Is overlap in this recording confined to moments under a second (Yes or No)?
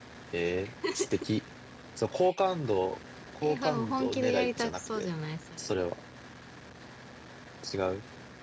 No